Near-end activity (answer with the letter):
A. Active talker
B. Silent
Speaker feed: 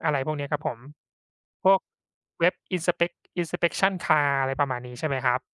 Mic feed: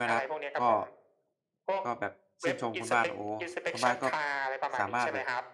A